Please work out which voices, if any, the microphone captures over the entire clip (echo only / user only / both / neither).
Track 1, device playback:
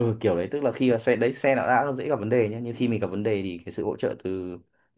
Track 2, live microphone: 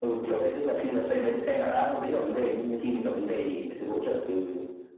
echo only